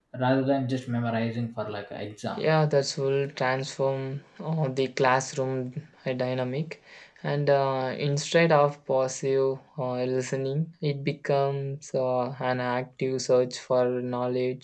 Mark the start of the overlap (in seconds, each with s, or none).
none